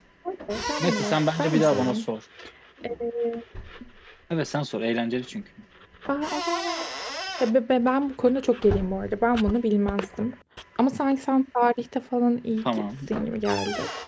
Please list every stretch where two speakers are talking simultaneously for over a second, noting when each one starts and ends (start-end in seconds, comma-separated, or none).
0.8-2.0